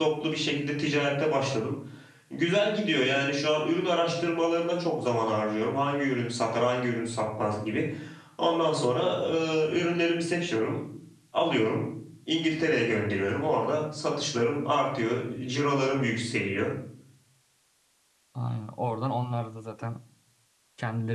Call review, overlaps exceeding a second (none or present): none